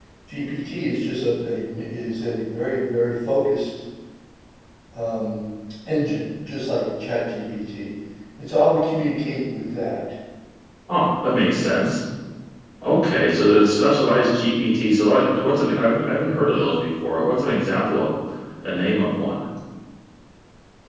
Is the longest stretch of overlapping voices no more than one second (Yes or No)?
Yes